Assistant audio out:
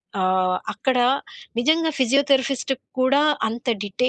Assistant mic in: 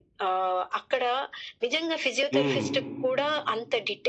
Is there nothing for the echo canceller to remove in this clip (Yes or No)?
No